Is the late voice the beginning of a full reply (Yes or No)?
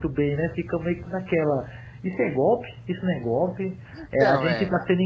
No